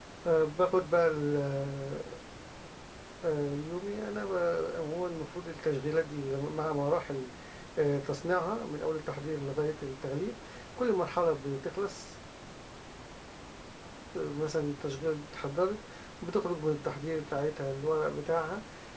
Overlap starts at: none

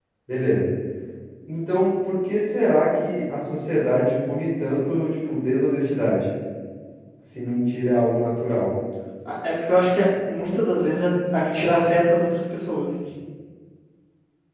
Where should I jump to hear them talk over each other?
none

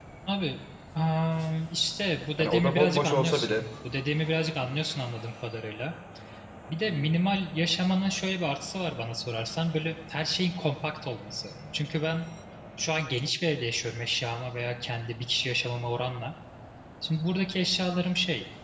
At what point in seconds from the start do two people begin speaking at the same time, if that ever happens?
2.4 s

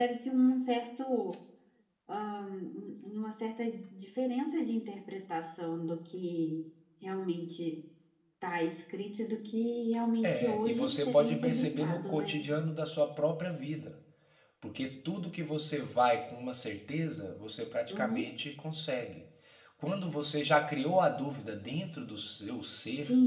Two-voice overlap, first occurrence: 10.2 s

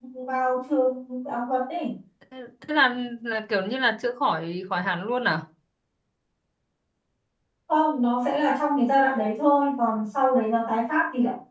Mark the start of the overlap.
none

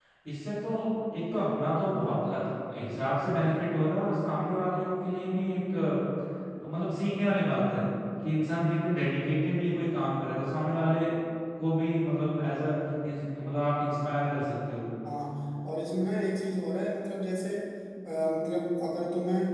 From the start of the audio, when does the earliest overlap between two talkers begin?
none

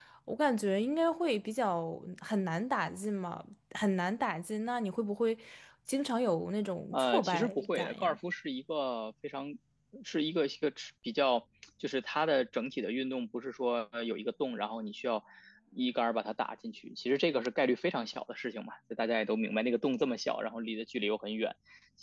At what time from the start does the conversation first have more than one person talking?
6.9 s

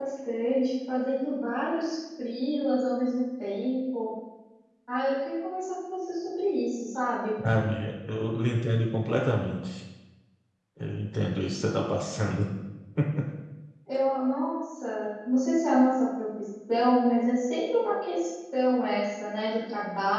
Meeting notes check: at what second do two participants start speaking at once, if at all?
none

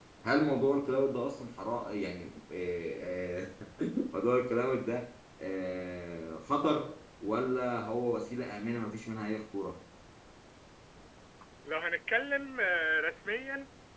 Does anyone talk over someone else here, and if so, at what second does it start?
none

